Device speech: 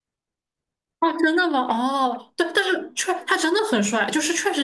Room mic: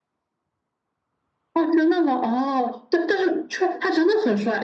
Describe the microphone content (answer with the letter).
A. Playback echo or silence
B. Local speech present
A